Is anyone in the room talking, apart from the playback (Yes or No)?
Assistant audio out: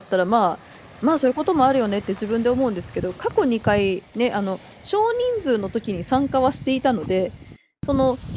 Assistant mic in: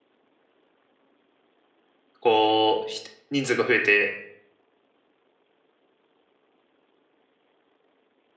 Yes